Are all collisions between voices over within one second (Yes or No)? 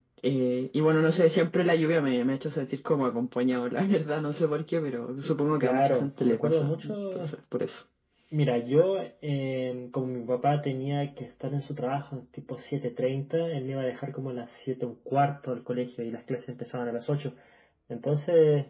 No